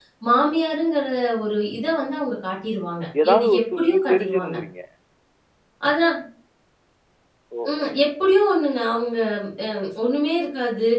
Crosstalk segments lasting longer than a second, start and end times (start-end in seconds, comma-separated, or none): 3.2-4.6